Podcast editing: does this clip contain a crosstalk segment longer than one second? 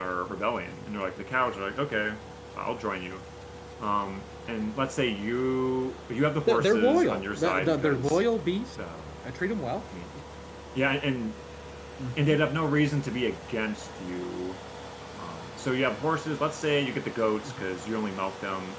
Yes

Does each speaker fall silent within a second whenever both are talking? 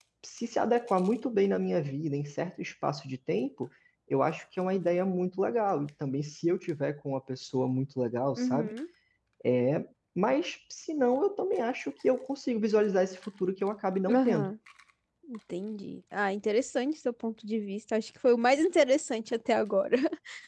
Yes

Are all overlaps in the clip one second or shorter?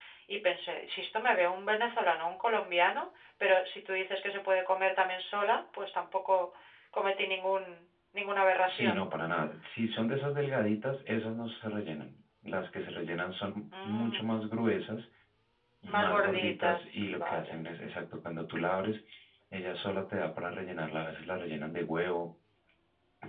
No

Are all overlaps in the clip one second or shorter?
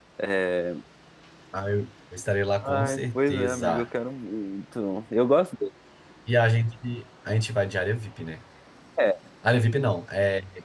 No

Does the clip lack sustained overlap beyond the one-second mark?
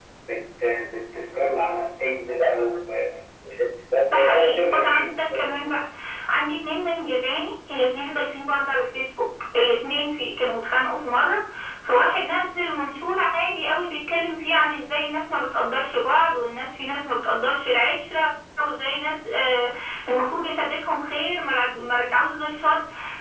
No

